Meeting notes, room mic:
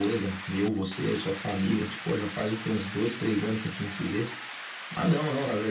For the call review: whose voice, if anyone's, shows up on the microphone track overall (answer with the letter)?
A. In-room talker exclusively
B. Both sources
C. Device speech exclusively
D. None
C